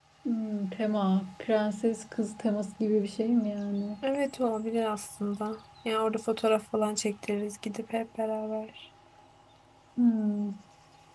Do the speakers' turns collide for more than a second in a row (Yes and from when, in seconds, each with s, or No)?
No